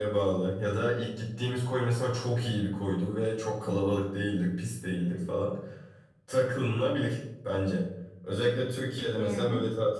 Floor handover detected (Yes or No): No